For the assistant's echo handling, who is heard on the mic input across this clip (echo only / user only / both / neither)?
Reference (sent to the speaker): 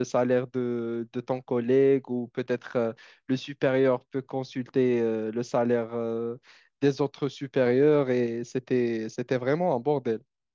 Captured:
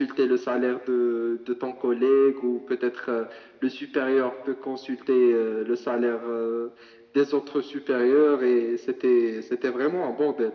echo only